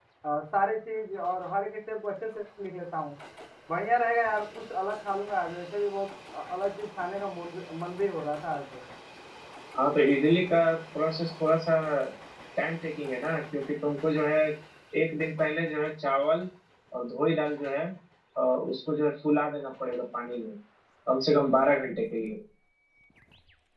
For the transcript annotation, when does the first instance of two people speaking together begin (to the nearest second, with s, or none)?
none